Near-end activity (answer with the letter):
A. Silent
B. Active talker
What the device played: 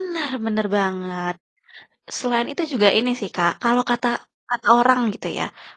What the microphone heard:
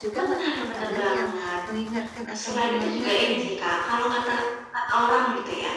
B